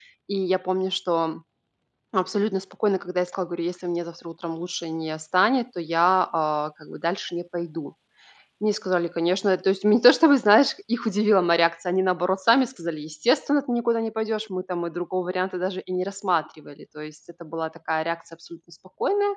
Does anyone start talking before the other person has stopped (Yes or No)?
No